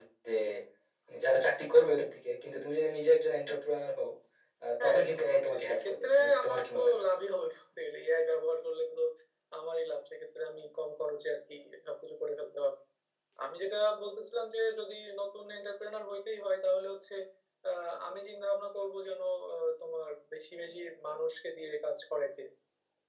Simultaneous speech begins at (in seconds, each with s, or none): 4.8 s